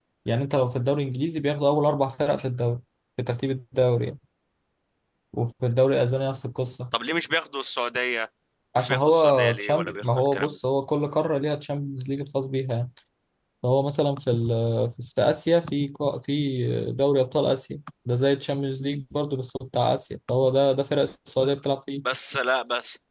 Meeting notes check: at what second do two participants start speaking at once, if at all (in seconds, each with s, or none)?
8.8 s